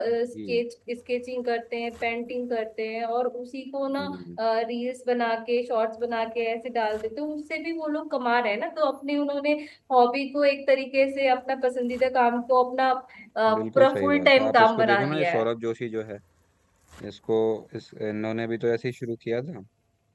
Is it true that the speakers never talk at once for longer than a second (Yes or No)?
No